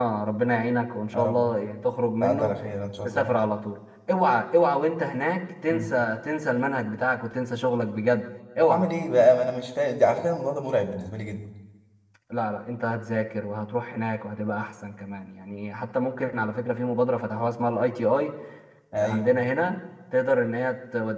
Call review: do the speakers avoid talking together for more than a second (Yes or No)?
Yes